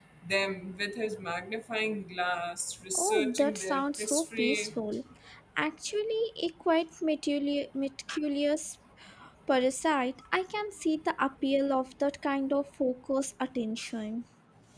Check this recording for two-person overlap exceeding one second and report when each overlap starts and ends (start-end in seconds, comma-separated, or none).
2.9-4.7